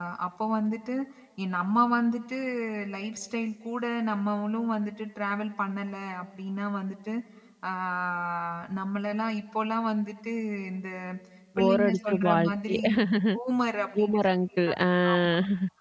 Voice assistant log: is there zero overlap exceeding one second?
No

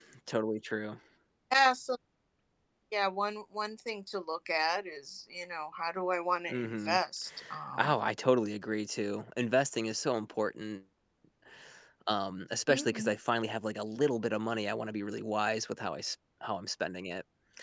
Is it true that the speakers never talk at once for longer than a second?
Yes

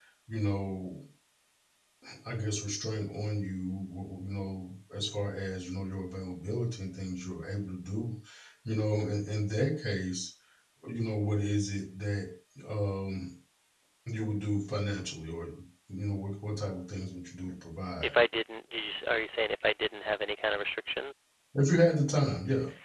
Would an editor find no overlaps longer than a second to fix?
Yes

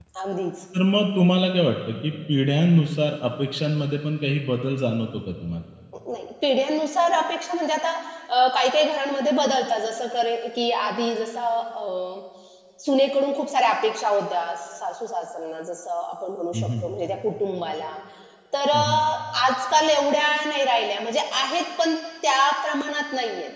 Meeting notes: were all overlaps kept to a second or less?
Yes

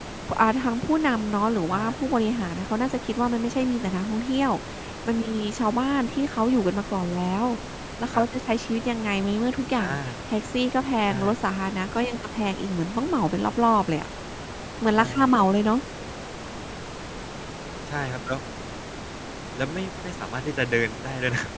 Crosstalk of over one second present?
No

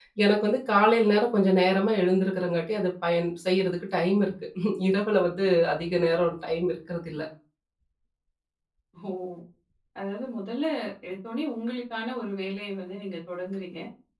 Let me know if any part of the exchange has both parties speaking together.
No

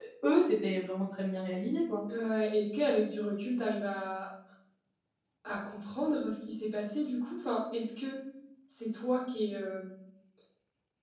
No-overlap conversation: Yes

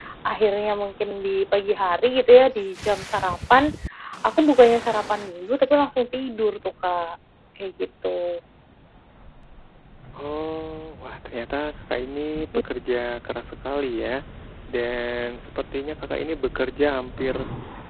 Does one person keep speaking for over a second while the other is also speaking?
No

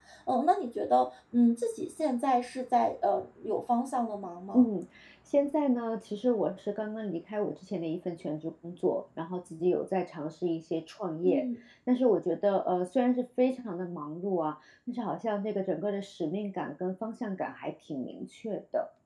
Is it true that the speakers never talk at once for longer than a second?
Yes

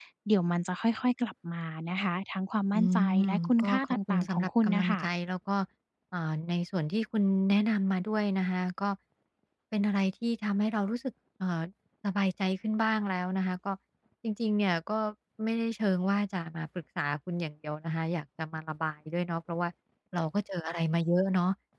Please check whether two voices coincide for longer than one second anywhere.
Yes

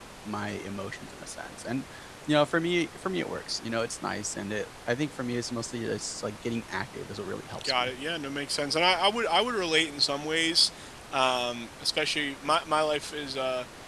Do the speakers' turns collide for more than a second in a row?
No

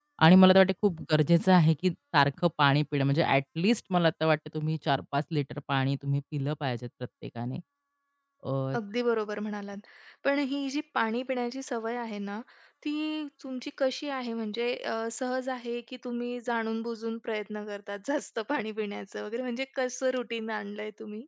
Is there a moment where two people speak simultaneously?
No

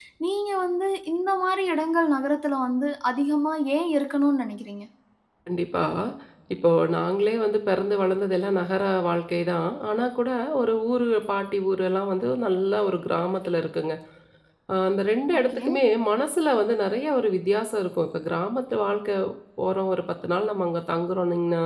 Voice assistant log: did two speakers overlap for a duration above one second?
No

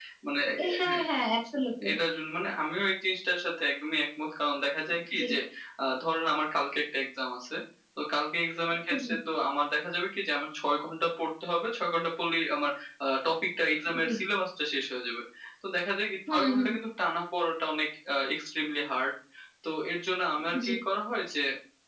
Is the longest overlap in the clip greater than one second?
No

